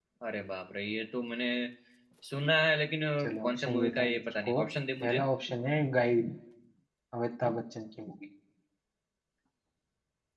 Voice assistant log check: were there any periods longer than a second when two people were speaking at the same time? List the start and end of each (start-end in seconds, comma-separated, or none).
3.2-4.6